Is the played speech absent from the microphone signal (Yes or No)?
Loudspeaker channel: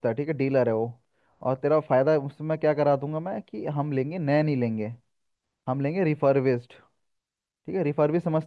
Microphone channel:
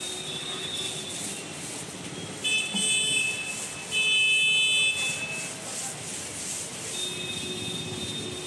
Yes